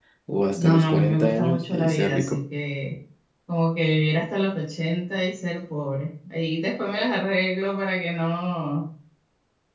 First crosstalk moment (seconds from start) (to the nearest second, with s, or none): 1 s